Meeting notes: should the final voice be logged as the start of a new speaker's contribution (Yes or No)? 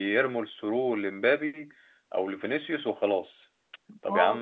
No